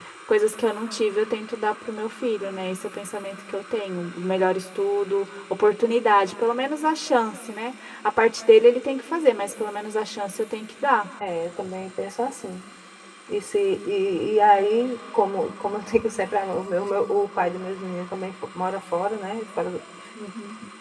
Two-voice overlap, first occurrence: none

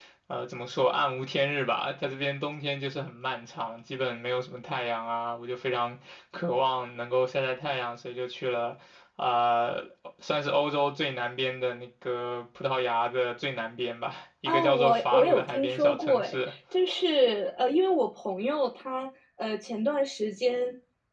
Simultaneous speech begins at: 14 s

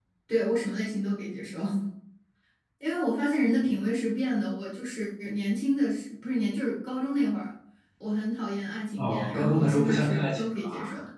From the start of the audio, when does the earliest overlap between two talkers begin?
9 s

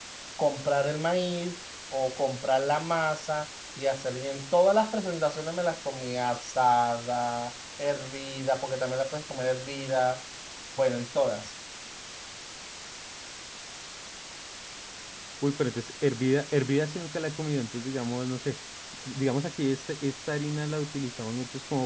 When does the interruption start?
none

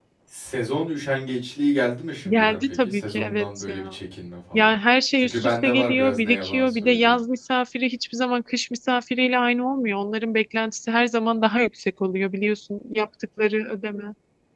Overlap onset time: 2 s

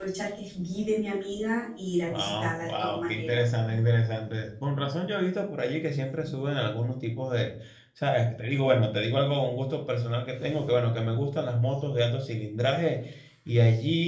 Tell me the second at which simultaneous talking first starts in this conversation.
2 s

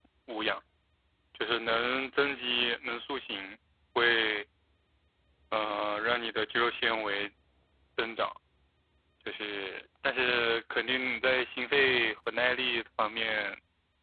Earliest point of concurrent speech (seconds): none

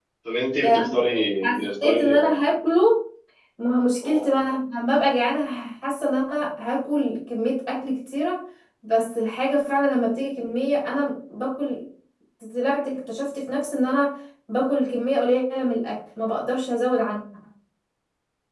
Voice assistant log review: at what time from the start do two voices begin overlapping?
1 s

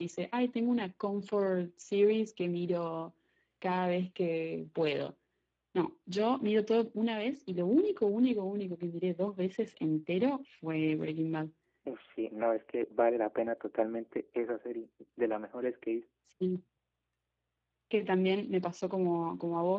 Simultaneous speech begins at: none

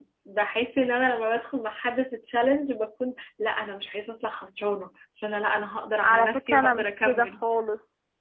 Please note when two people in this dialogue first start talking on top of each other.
6 s

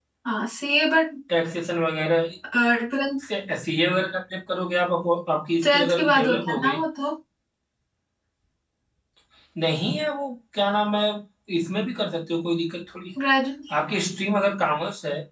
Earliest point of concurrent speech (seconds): 6 s

